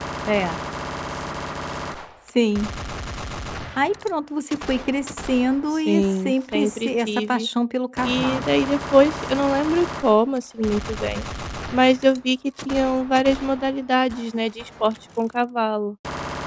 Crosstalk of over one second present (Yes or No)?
Yes